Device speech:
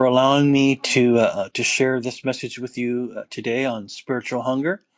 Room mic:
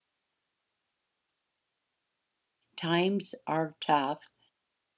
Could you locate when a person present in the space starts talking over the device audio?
3 s

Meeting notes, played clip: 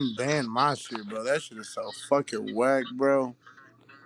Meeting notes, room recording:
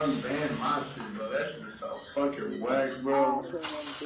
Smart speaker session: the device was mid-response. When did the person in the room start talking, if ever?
3 s

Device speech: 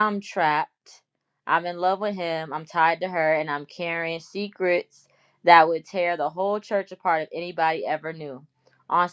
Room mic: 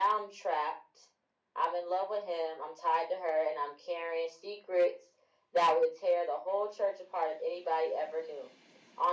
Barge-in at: none

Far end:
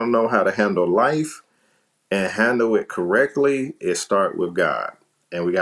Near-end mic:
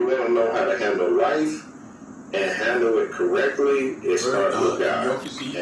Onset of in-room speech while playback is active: 4 s

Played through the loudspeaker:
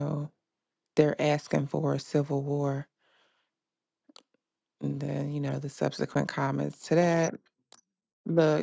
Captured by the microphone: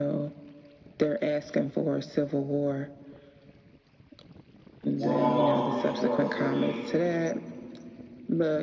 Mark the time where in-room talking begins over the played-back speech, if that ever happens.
5 s

